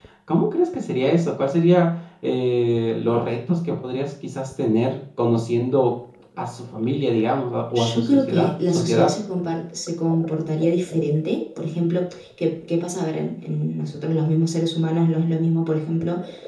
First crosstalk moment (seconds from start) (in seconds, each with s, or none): 7.8 s